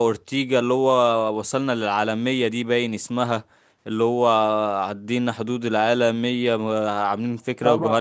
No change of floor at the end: No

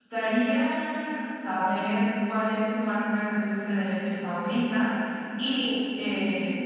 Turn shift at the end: No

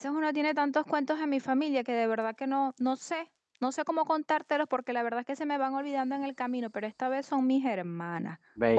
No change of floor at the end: No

